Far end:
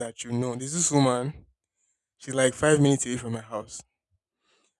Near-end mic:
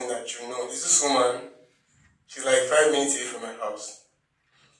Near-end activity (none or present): none